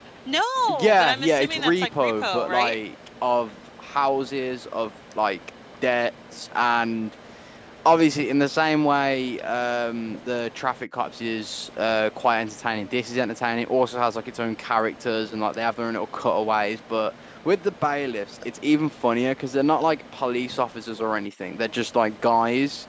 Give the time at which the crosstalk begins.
0.7 s

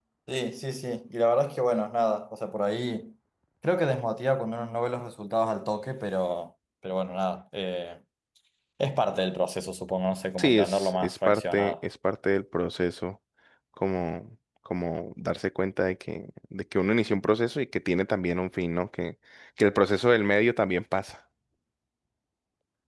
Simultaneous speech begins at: 10.4 s

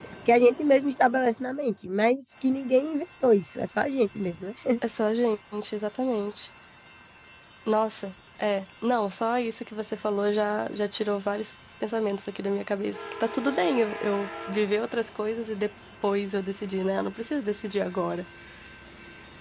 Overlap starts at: none

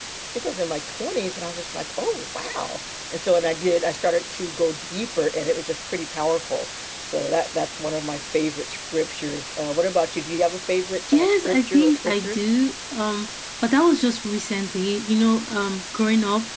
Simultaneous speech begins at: 11.1 s

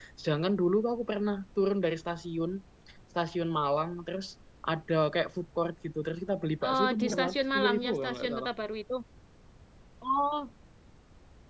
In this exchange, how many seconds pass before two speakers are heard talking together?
6.6 s

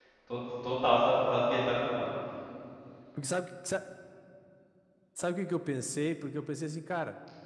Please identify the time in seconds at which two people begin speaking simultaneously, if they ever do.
none

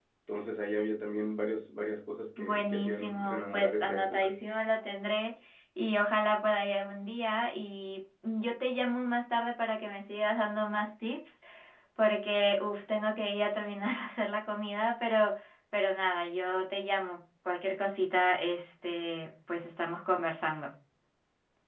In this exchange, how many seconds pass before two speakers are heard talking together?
2.4 s

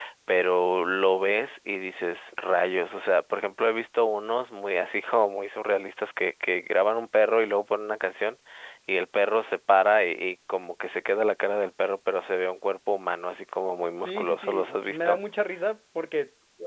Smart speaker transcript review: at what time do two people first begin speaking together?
14.0 s

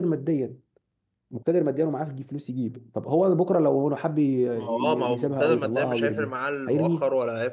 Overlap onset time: 4.6 s

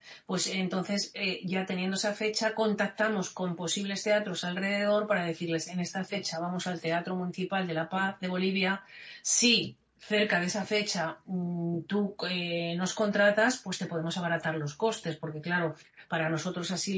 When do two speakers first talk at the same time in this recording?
none

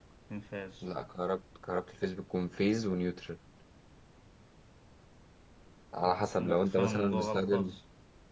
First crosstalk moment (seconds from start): 6.0 s

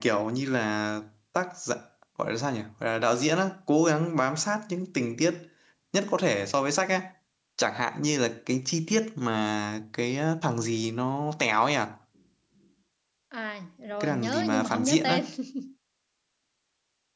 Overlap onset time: 14.0 s

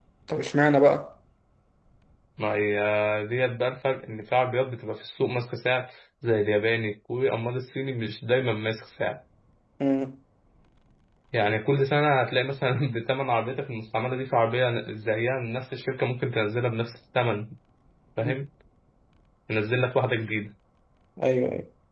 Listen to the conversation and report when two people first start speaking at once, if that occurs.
none

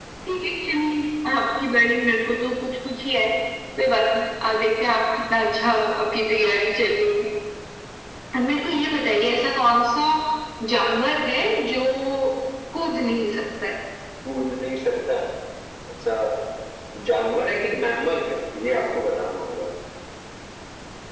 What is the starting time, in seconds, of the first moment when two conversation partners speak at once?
none

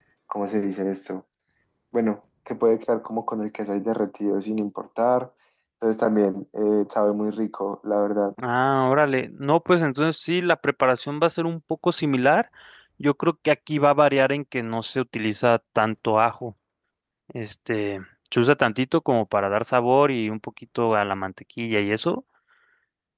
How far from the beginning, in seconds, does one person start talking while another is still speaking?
none

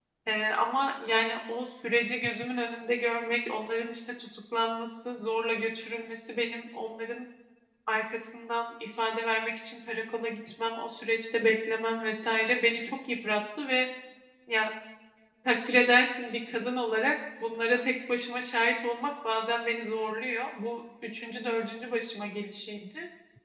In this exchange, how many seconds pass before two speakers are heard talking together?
none

